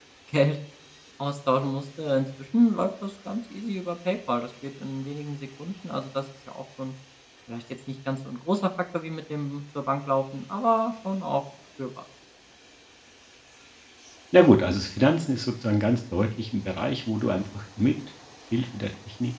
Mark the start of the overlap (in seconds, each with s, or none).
none